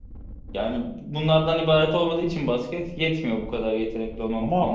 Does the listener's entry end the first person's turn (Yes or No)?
Yes